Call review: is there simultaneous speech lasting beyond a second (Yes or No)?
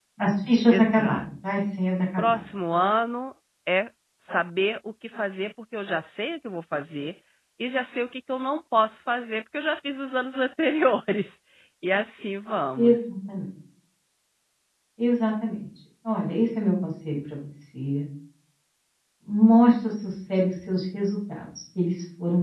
No